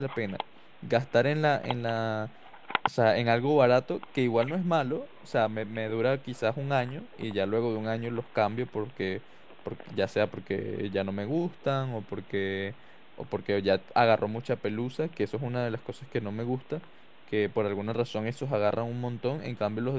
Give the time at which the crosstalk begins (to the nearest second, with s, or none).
none